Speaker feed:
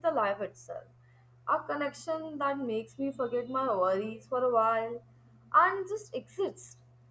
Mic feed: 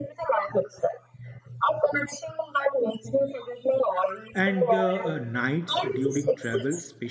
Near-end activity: present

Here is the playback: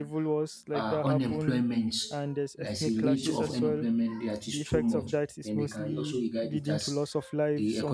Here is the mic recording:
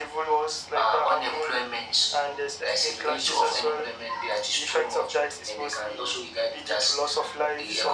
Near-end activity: none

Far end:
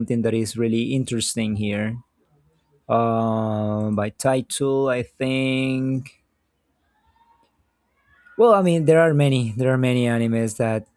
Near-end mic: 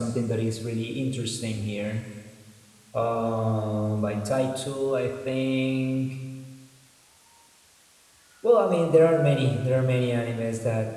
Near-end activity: none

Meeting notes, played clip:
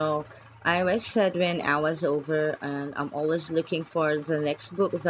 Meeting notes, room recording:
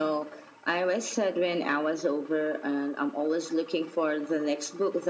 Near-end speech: none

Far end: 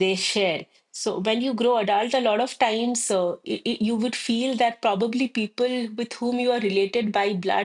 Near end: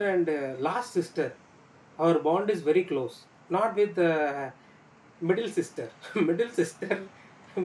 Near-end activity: present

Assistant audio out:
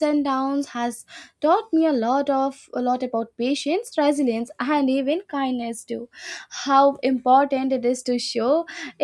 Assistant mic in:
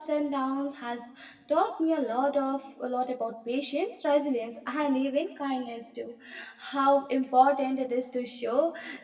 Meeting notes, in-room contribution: none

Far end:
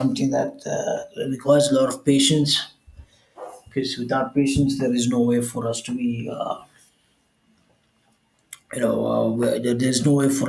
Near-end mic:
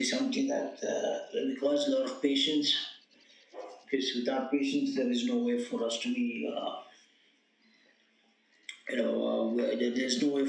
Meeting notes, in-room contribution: none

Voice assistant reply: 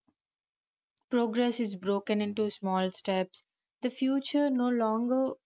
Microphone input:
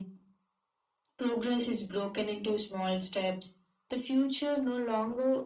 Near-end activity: none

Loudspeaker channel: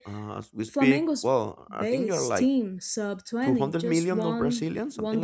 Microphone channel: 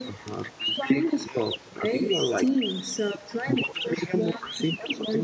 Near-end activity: none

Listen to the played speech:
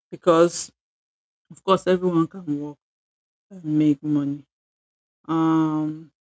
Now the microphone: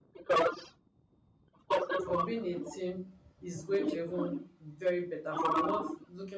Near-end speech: present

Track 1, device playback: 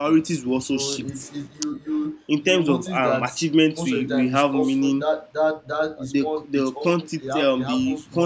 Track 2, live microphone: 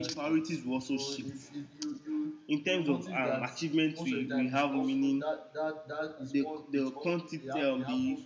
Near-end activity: none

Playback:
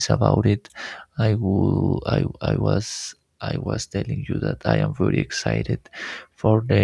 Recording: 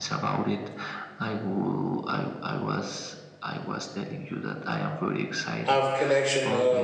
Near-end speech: present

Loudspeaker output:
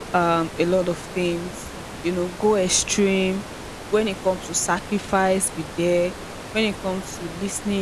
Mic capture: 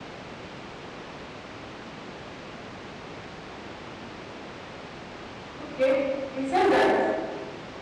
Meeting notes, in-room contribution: present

